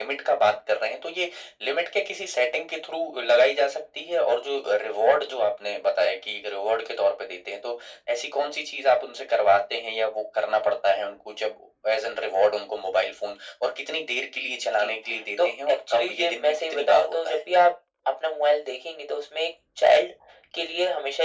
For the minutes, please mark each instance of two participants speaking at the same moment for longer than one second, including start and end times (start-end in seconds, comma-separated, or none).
15.4-17.4